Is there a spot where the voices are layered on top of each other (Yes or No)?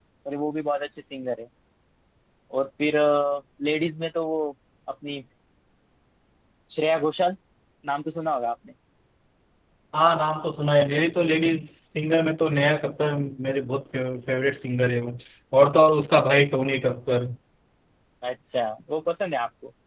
No